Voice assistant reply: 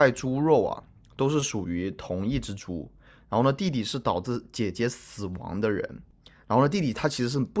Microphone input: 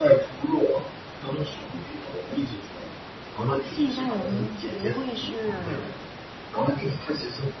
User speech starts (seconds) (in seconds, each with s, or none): 3.7 s